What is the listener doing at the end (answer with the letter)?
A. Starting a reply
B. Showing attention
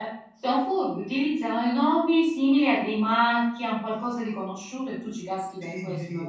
A